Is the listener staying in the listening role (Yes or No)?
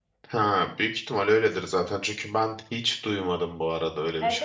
No